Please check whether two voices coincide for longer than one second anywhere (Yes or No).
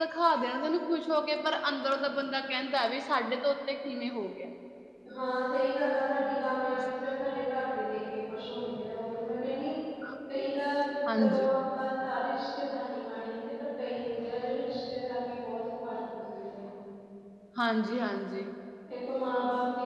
No